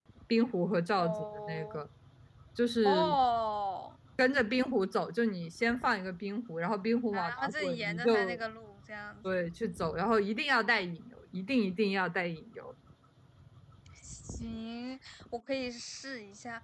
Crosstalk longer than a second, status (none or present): present